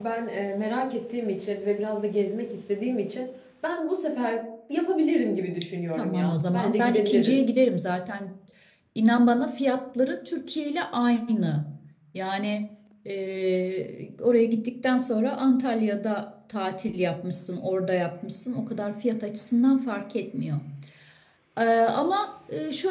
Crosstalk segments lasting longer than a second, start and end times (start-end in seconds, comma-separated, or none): 6.0-7.4